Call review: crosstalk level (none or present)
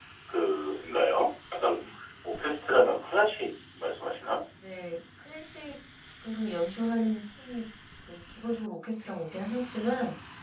none